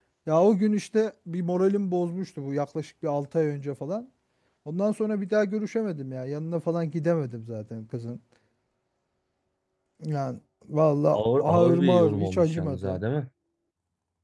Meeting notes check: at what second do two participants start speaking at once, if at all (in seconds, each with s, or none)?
11.1 s